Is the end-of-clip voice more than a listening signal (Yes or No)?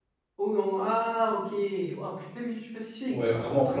Yes